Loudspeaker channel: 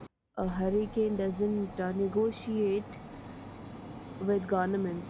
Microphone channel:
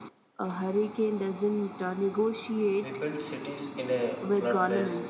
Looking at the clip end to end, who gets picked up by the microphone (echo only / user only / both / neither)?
both